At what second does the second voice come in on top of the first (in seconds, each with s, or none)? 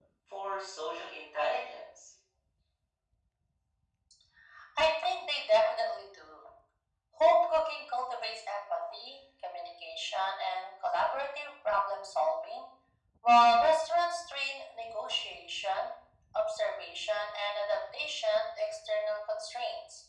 none